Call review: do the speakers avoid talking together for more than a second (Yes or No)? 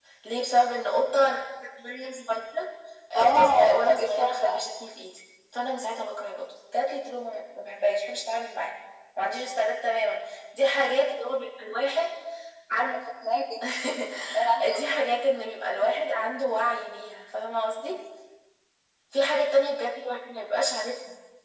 No